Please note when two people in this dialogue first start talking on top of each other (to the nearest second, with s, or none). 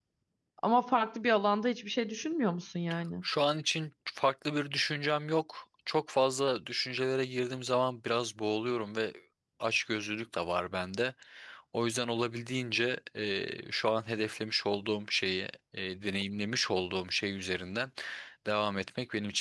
none